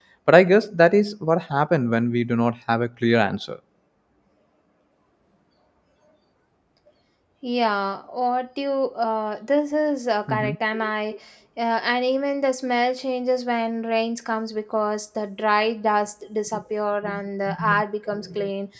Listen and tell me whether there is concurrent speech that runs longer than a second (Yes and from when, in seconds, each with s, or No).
No